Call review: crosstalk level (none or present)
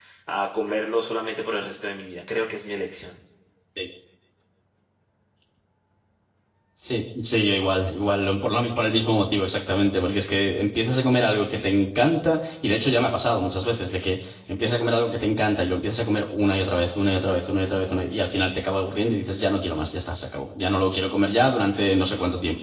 none